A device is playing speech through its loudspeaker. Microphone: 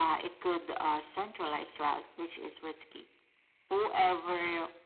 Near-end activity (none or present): none